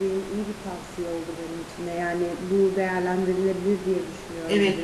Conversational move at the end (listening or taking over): taking over